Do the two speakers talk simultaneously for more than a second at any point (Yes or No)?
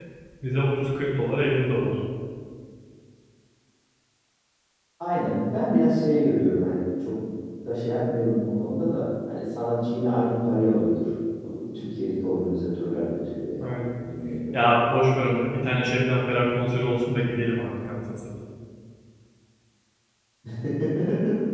No